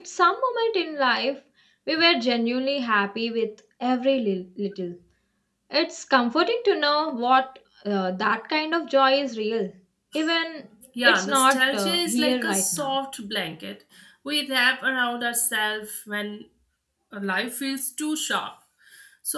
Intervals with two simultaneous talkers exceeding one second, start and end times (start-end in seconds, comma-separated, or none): 11.0-12.9